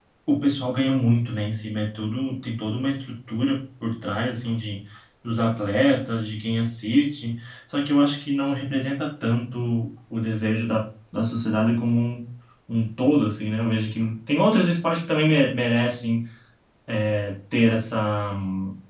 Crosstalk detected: No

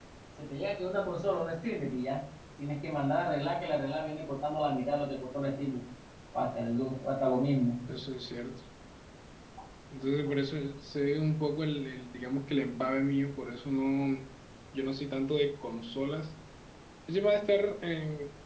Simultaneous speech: No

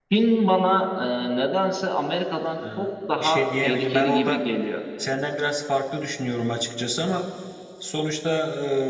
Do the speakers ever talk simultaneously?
Yes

